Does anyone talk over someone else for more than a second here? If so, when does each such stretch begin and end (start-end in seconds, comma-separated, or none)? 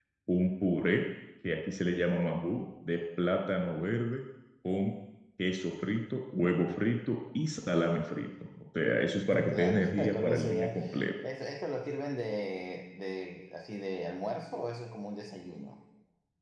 9.5-10.8